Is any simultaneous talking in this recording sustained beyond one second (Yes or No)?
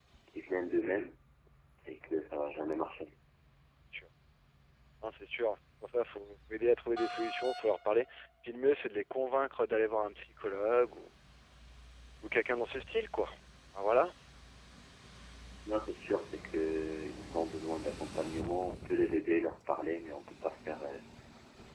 No